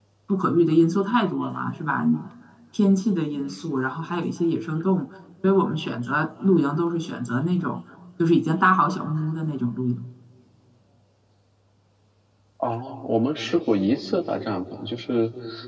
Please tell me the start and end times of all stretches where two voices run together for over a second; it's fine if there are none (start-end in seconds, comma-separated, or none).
none